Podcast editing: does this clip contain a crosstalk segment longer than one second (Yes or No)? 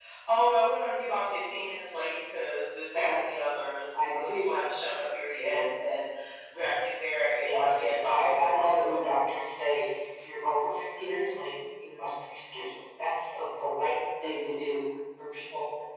Yes